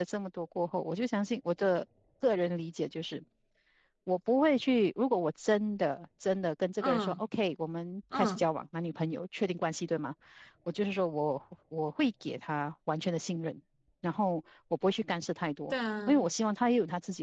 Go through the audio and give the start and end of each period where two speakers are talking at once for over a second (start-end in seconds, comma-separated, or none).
none